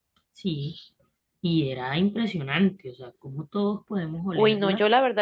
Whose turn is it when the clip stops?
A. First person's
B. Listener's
B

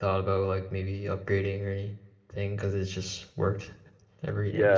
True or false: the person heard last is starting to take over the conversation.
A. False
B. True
B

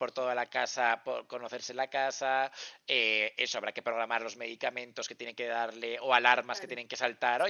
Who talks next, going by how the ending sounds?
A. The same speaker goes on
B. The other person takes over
A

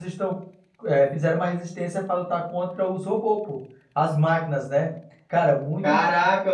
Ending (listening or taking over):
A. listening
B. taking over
B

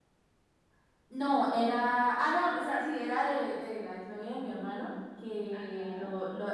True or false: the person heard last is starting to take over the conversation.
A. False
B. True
A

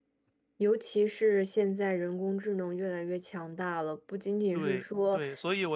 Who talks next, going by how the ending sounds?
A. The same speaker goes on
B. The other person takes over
B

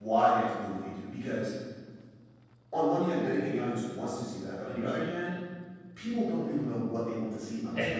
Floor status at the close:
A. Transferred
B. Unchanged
A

